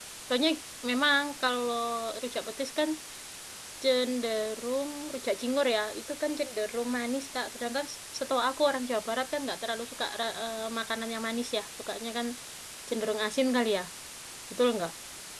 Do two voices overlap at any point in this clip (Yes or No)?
No